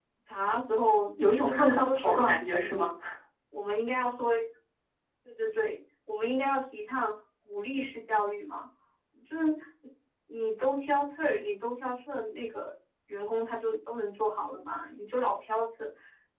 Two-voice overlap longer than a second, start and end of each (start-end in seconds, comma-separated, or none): 1.2-2.9